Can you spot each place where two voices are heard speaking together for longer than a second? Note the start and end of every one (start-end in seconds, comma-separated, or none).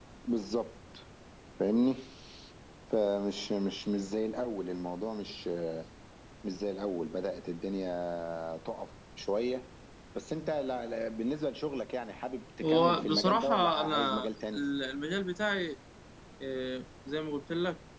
12.6-14.6